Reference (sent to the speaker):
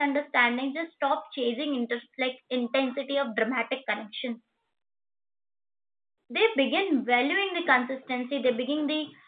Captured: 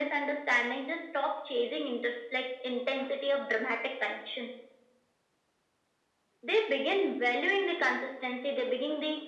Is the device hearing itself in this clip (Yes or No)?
Yes